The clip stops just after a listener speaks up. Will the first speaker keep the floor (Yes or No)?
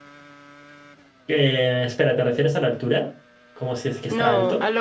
No